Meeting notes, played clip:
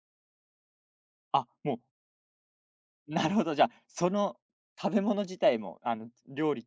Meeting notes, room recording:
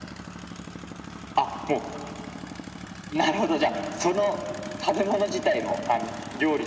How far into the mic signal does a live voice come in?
none

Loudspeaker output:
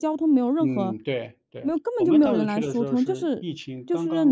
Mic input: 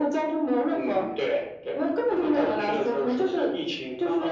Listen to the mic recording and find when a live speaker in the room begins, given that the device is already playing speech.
none

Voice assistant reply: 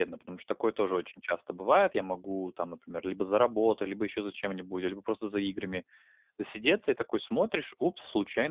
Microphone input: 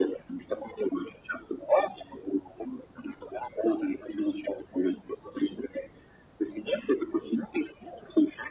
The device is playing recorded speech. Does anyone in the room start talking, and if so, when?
none

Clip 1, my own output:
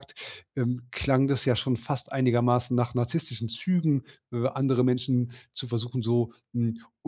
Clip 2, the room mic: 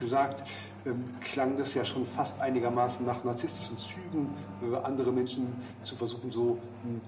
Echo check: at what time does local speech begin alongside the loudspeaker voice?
none

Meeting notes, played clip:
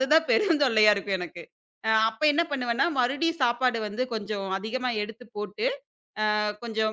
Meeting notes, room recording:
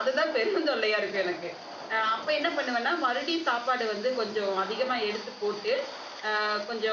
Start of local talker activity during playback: none

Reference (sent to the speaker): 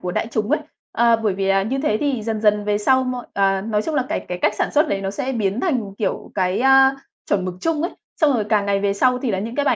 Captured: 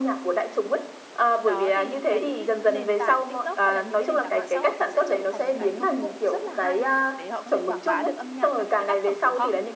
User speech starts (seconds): 1 s

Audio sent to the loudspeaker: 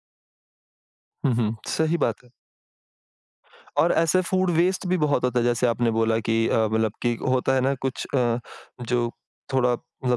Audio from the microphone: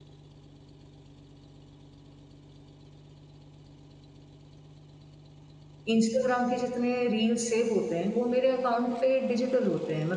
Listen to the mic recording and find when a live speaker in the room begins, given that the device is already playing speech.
6 s

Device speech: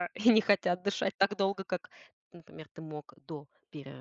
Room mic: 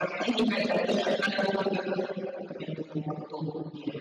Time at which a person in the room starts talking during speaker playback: none

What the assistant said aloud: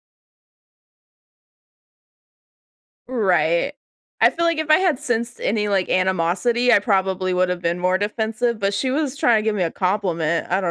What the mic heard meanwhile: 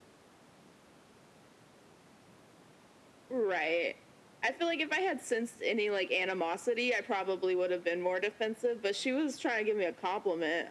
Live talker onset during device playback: none

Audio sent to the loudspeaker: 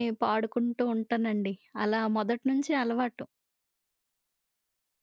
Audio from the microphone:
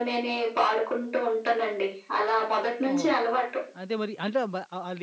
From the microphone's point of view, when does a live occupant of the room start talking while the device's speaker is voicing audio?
3 s

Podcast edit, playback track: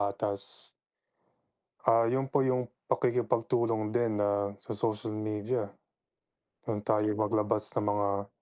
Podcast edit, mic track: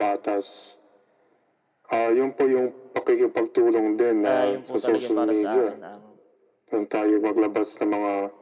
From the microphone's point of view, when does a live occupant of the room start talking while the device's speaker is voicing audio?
4 s

